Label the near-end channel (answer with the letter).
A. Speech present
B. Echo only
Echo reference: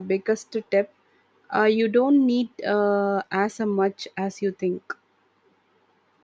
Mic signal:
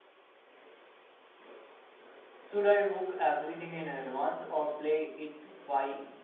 A